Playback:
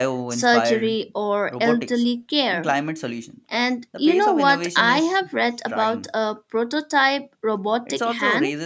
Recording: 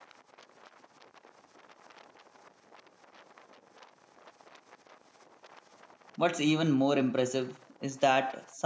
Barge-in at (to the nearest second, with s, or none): 6 s